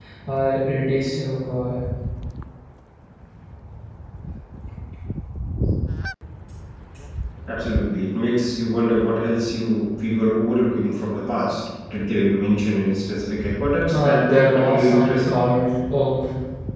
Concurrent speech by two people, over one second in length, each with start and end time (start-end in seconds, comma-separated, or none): 13.9-15.4